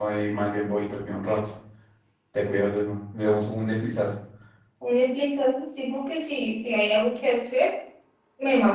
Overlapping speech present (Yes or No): No